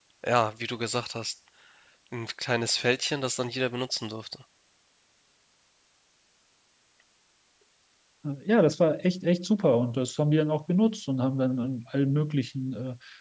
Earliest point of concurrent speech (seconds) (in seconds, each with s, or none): none